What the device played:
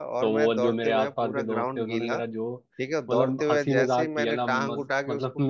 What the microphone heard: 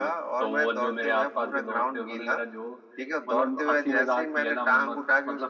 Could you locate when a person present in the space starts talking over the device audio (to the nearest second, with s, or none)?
none